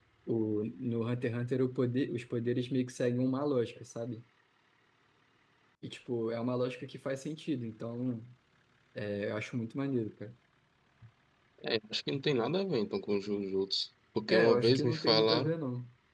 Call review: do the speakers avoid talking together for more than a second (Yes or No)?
No